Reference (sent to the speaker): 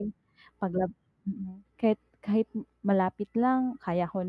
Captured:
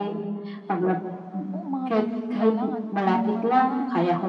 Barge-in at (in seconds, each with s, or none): 1.5 s